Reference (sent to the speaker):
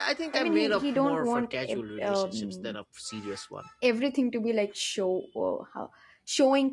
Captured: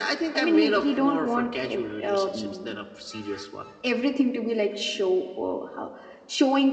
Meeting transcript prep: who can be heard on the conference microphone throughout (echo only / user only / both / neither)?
echo only